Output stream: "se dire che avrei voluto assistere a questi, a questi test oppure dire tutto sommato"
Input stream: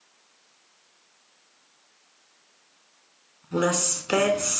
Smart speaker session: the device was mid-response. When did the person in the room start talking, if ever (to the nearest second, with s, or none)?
4 s